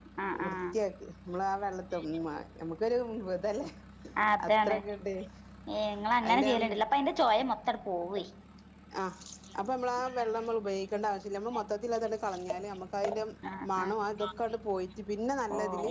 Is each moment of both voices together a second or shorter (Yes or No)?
Yes